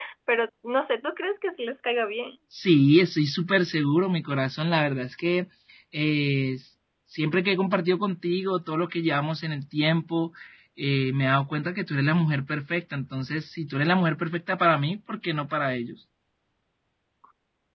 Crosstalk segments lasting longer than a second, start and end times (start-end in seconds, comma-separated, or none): none